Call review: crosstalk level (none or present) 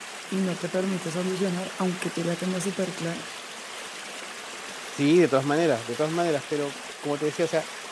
none